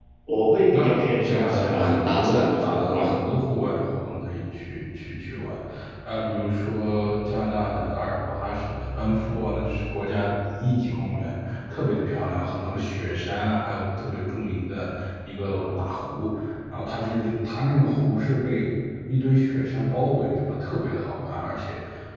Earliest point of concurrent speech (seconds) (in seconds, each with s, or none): 0.7 s